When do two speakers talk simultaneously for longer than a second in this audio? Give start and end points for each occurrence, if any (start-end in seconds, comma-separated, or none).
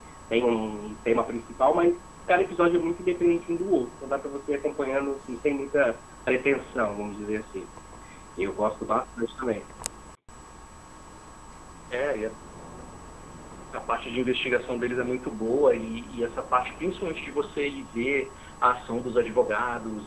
none